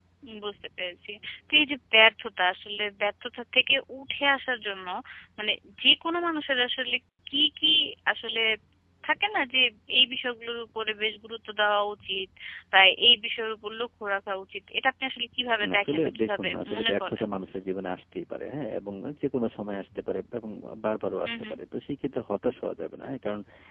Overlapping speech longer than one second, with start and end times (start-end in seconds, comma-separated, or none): 15.6-17.2